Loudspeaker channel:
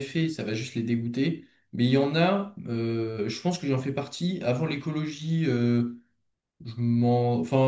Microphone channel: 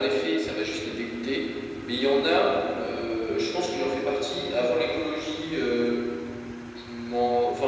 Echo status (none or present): present